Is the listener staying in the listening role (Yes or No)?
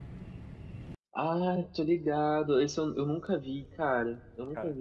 No